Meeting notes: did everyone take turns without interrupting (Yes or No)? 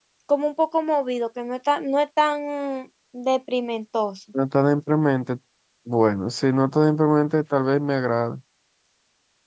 Yes